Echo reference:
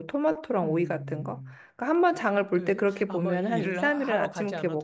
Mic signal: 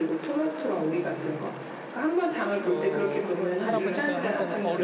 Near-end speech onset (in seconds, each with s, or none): 2.6 s